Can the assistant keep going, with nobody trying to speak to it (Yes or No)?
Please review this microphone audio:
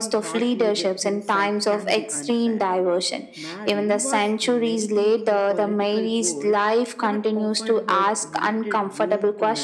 No